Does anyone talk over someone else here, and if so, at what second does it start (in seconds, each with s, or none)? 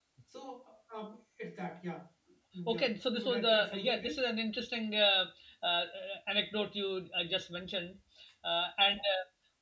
2.7 s